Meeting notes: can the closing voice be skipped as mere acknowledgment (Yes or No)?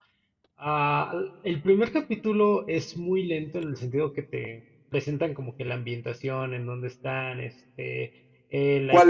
No